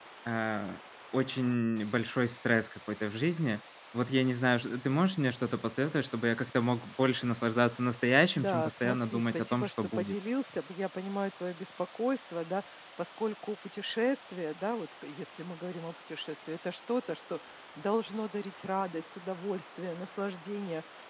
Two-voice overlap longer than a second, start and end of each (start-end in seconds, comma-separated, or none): 8.4-10.2